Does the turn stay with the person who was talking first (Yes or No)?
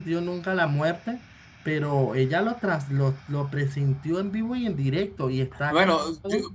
No